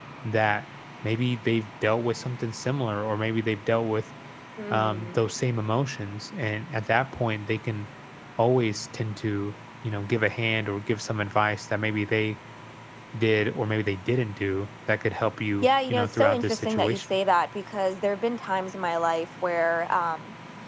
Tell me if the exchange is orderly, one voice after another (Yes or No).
No